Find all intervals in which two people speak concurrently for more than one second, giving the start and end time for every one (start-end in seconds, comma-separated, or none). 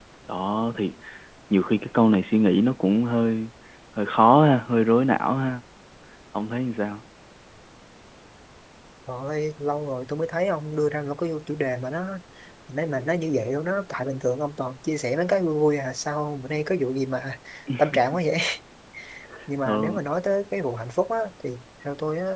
none